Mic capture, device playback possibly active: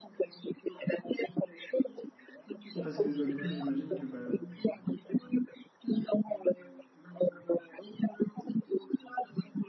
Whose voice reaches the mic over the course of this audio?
both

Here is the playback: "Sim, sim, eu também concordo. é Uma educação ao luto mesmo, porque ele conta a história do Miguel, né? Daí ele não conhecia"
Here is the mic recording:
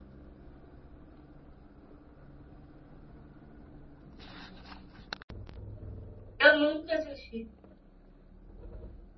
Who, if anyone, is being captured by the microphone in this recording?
user only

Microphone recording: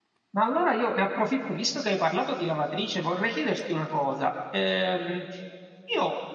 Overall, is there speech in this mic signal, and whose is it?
user only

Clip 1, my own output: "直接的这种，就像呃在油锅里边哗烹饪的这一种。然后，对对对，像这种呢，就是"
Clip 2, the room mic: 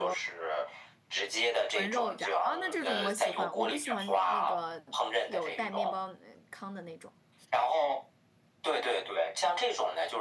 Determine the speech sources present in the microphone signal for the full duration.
both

